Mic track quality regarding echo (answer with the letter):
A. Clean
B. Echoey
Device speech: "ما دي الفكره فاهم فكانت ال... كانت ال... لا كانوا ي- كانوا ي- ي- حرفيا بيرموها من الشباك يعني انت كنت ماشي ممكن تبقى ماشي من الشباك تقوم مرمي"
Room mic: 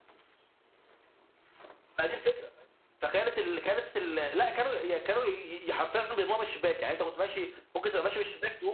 B